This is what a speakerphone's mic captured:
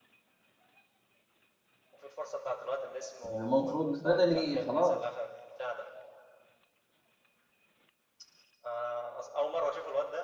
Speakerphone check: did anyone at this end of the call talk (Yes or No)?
Yes